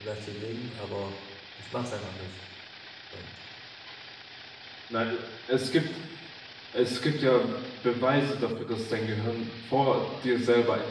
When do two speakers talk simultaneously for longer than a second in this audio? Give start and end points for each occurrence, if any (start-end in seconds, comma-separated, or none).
none